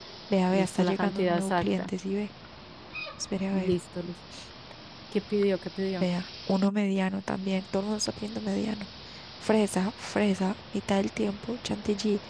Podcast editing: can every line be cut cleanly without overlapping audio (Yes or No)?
No